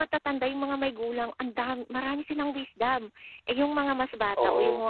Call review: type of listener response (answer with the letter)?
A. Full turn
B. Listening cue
B